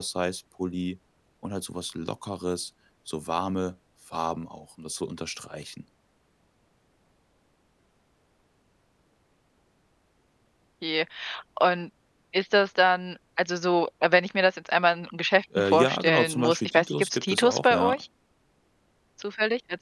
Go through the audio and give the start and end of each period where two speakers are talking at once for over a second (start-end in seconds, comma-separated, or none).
15.6-18.0